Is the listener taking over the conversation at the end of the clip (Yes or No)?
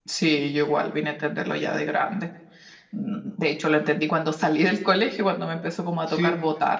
Yes